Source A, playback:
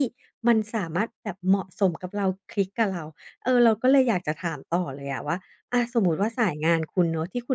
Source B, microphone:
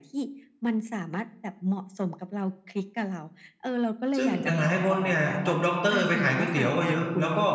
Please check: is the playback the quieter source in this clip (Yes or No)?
Yes